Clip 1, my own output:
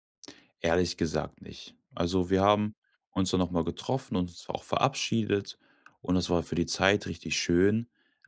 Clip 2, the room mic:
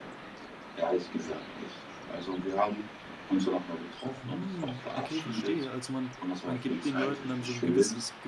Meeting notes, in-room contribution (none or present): present